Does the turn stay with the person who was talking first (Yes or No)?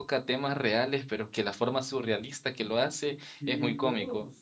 No